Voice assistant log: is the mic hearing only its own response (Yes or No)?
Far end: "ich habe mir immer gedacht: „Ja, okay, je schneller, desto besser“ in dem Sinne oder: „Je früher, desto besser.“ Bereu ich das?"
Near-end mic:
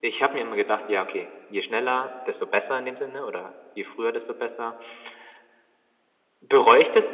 Yes